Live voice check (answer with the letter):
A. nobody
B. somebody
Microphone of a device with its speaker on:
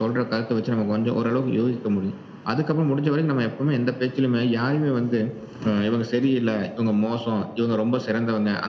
A